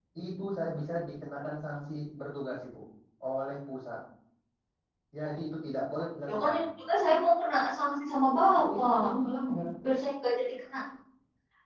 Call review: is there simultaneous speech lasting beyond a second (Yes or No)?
No